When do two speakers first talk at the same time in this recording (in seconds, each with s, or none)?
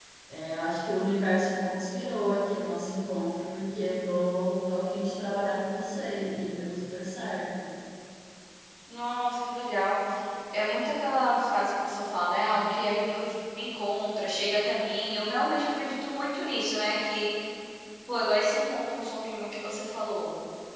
none